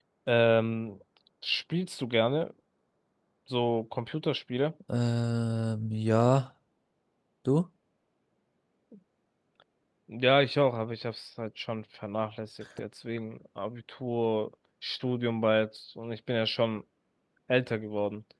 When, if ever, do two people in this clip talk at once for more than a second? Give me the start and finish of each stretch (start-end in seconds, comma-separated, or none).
none